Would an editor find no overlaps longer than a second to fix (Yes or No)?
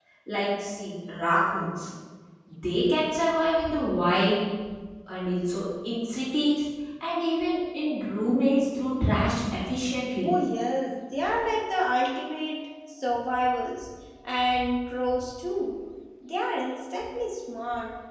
Yes